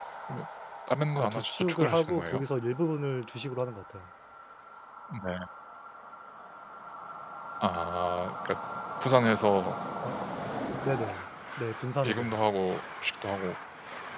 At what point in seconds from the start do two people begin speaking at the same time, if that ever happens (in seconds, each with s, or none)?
1.2 s